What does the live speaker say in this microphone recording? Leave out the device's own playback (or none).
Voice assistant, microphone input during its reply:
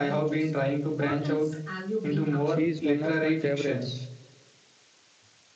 She is one of my favorites.